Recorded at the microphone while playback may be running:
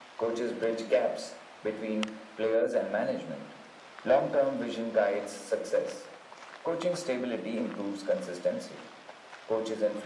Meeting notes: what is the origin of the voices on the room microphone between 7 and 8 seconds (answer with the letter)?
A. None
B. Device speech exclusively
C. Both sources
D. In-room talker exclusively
B